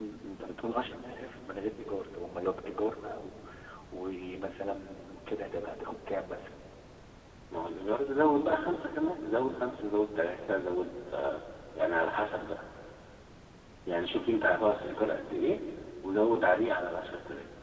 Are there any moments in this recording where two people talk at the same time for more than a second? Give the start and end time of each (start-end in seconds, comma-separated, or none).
none